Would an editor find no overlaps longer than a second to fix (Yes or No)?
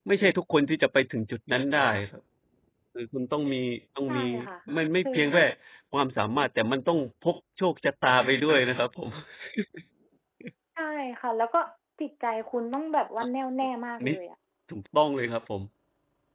Yes